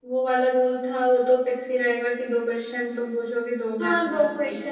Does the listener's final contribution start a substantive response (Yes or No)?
Yes